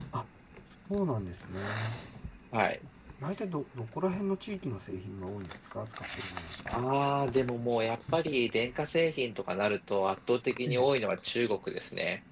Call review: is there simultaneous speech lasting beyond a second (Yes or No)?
No